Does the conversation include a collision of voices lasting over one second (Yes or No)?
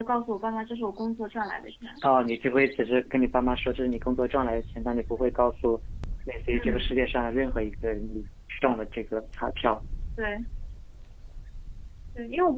No